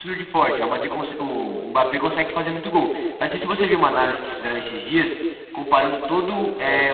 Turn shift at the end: No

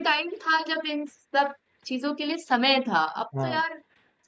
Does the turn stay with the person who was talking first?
Yes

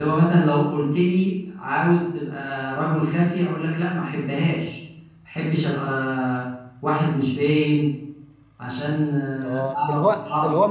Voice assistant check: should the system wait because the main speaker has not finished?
No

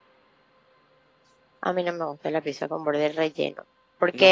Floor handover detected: No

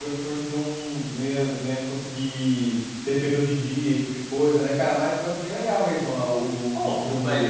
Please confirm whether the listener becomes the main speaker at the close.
Yes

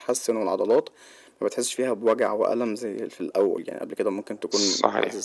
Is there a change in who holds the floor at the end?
No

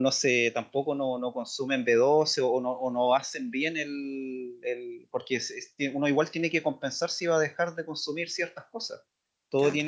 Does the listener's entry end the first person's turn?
No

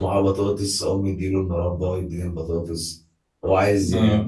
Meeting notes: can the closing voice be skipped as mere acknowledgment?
Yes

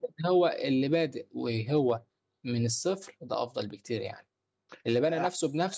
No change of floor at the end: Yes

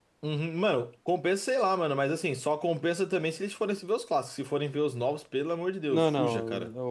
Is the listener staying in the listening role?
No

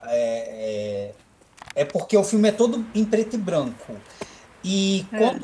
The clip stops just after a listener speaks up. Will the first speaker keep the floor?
Yes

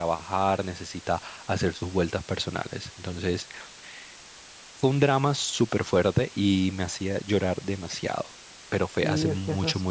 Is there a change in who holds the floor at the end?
Yes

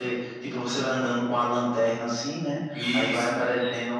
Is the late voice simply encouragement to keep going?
Yes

